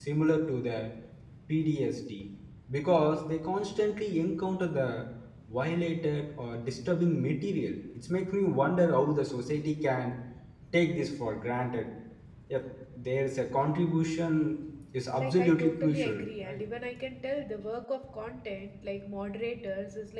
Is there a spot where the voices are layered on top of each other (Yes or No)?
Yes